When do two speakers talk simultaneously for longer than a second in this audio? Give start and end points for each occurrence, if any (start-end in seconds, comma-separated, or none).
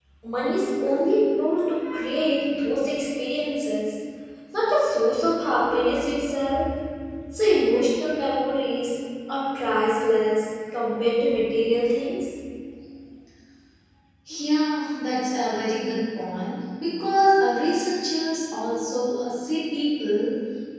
none